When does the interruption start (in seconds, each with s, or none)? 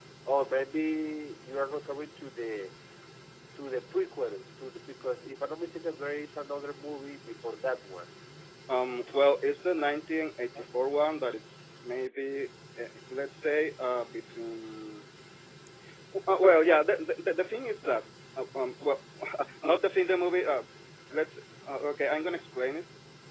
none